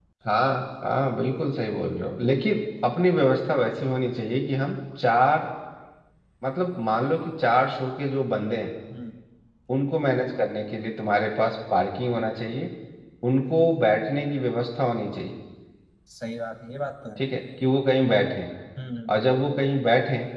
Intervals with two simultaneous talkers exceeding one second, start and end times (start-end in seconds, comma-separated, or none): none